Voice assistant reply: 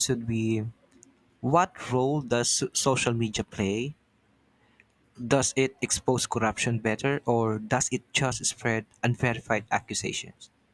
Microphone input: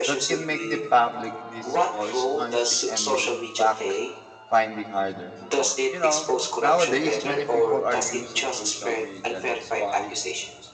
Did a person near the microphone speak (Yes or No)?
Yes